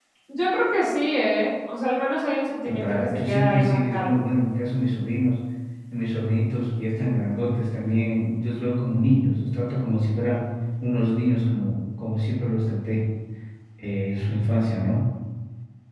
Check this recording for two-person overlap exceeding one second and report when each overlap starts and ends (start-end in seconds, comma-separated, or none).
2.7-4.1